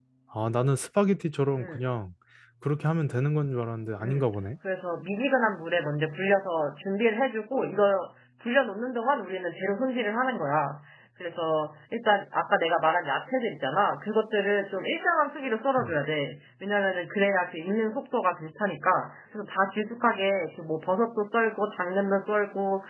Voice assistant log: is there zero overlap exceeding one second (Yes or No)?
Yes